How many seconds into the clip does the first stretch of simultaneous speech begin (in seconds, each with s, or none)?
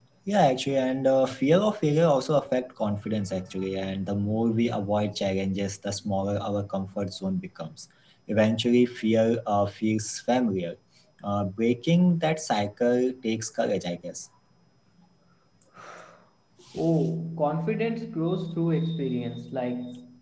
none